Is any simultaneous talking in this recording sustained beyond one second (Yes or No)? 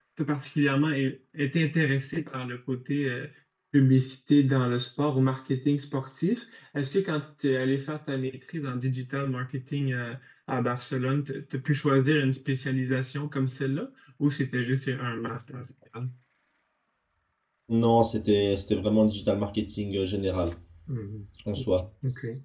No